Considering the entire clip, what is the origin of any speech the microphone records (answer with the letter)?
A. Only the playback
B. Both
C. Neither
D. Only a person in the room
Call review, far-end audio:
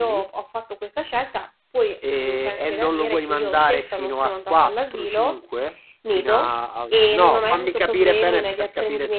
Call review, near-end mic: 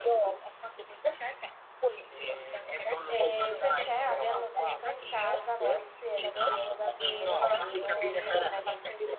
B